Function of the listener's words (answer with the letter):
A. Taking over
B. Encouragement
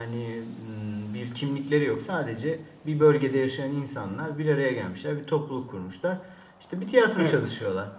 B